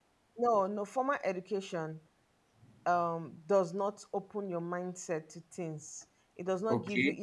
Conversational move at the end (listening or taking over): listening